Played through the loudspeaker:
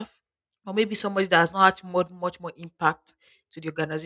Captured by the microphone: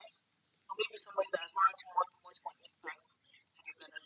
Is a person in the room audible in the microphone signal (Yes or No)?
No